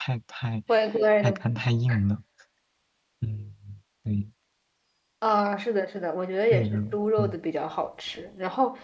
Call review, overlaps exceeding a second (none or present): none